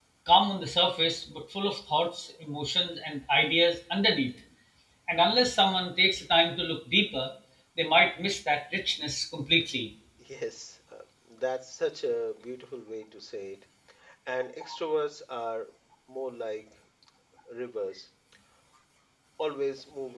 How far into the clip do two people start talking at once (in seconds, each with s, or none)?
none